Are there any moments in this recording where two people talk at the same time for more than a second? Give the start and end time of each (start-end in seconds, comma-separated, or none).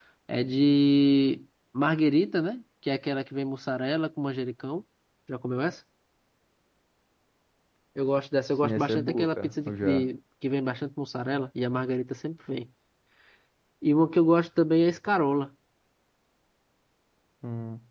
8.6-10.1